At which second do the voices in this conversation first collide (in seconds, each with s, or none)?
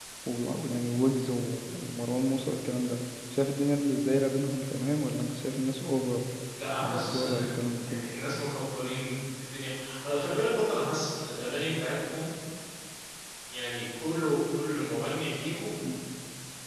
6.8 s